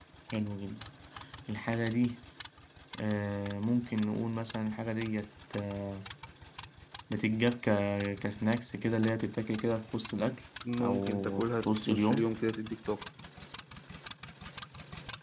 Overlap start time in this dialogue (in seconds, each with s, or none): 10.8 s